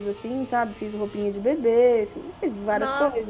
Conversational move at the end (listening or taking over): taking over